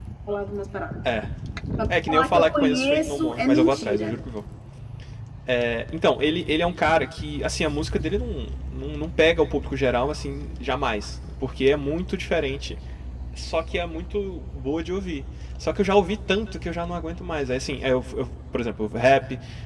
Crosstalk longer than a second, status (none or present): present